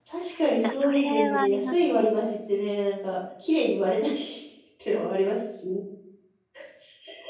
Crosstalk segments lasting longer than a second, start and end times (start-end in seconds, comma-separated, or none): 0.6-2.1